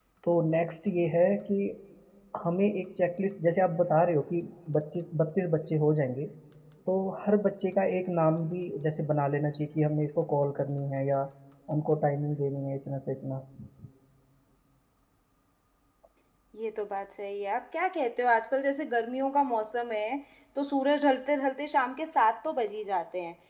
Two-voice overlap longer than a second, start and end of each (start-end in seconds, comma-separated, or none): none